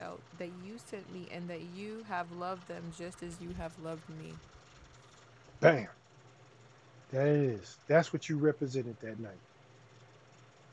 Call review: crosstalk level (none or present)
none